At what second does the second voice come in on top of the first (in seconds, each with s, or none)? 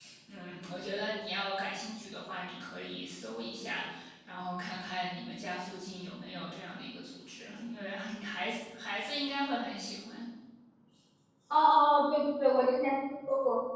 none